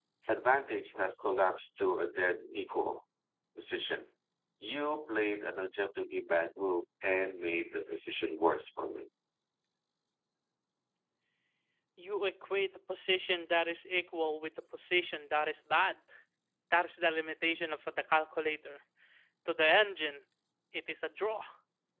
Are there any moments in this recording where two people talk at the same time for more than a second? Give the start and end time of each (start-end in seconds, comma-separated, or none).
none